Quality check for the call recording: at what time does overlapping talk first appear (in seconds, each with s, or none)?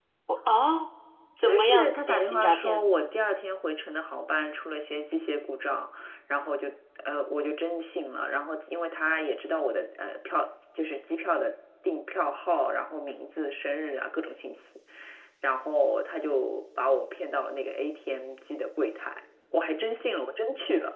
1.4 s